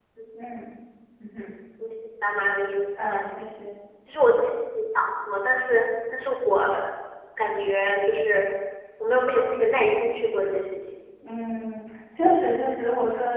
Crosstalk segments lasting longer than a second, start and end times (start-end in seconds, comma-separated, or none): none